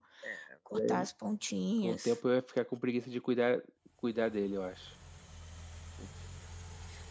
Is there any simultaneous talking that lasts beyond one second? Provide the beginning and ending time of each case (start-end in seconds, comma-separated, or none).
none